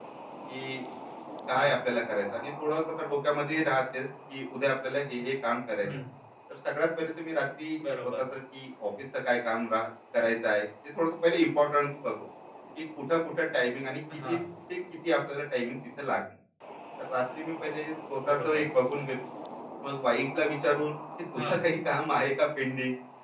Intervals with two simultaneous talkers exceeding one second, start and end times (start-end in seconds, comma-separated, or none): none